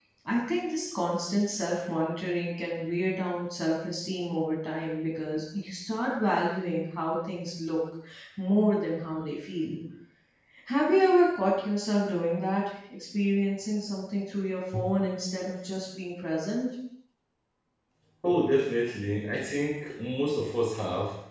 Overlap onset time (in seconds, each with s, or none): none